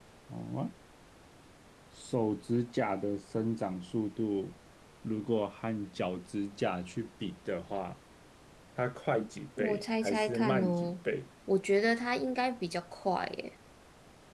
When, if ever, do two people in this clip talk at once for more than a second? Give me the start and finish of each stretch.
9.6-10.9

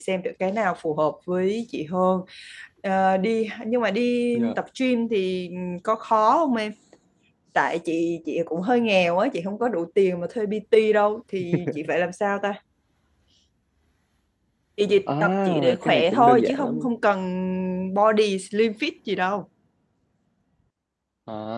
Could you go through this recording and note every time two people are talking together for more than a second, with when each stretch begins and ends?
15.2-16.9

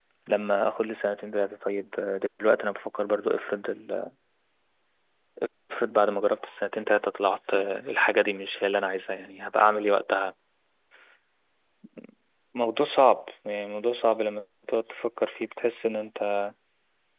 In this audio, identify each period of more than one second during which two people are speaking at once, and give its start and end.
none

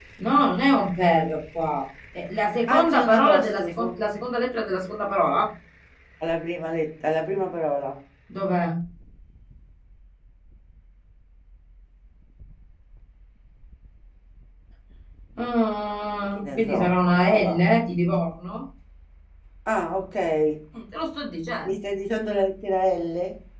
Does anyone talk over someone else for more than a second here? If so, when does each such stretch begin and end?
2.7-4.0, 16.3-17.6

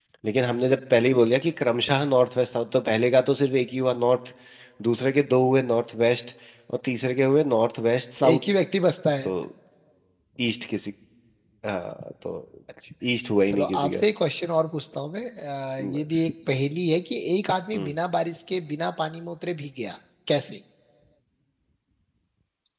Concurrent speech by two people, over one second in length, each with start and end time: none

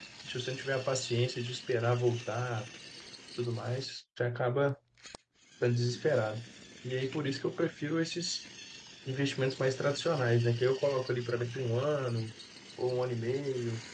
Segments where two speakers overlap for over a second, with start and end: none

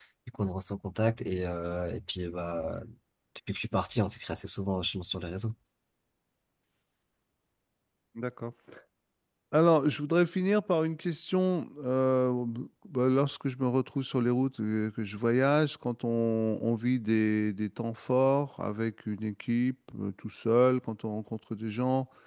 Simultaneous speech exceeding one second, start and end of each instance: none

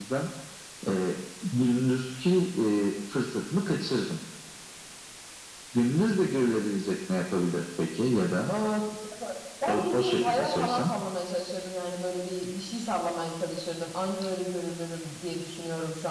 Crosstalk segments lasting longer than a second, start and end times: 9.7-10.9

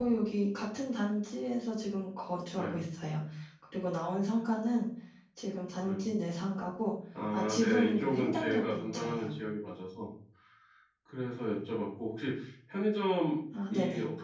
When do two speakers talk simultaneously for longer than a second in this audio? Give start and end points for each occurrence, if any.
7.3-9.3

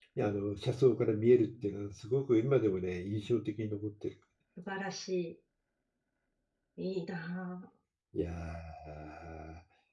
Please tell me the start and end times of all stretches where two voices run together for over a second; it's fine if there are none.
none

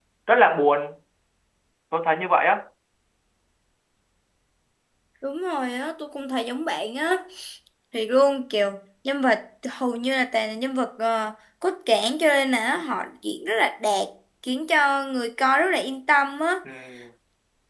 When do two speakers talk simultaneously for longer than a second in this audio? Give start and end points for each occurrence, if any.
none

